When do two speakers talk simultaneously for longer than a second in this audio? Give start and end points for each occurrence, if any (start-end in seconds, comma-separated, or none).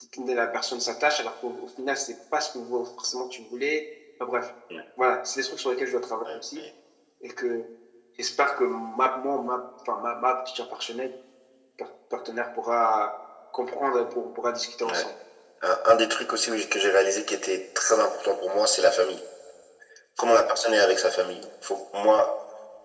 none